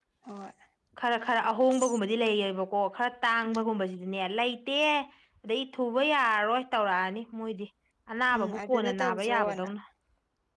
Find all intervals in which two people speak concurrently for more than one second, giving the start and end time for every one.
8.4-9.7

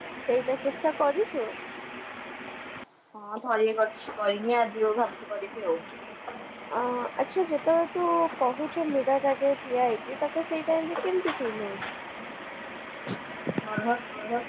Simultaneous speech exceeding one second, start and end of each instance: none

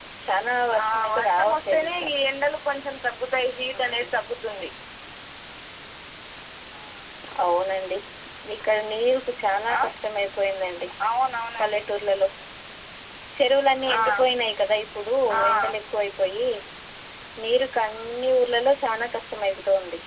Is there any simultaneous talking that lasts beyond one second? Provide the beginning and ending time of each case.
0.8-2.1

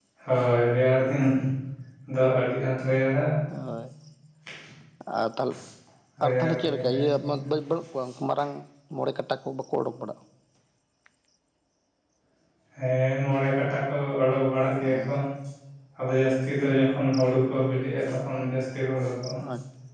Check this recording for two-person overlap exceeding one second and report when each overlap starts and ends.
6.2-7.5

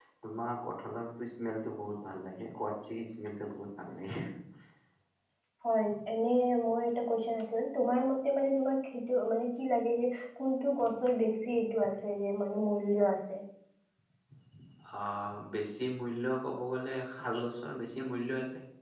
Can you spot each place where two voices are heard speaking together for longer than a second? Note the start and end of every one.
none

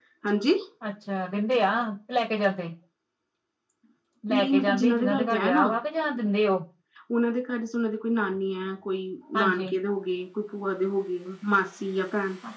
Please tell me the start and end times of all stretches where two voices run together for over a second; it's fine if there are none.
4.3-5.6

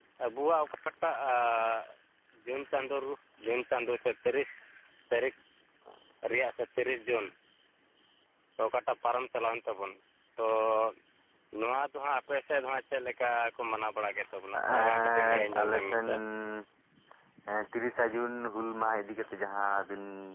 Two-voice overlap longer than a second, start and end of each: 14.8-16.1

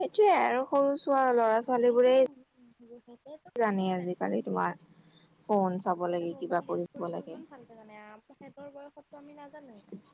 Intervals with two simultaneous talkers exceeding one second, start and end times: 6.1-7.4

